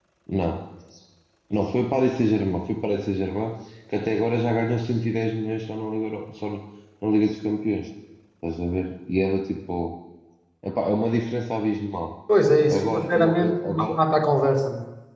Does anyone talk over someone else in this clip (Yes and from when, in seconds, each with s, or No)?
Yes, from 12.7 s